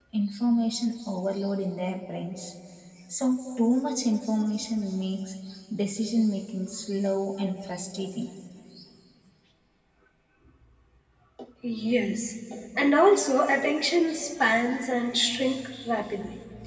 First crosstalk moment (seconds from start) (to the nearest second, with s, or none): none